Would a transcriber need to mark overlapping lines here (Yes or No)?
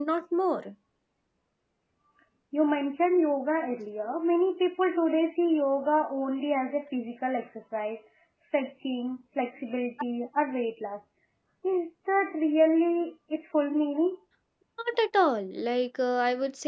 No